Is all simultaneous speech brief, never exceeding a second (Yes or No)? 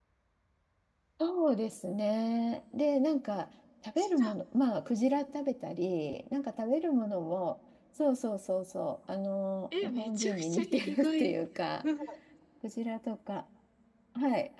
No